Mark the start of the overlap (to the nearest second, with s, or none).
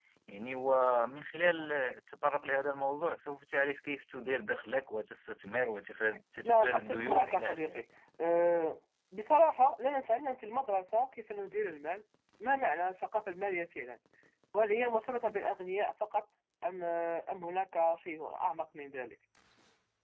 6 s